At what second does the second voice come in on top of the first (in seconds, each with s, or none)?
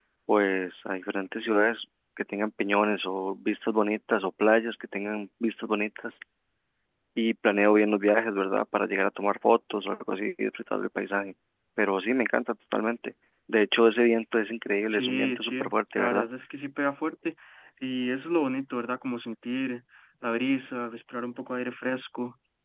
14.9 s